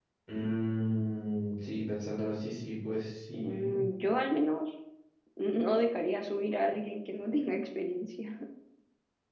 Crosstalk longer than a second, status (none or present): none